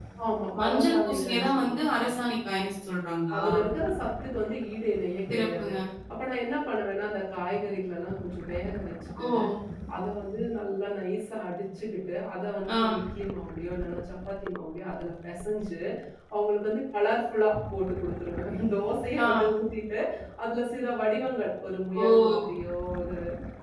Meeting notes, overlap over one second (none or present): present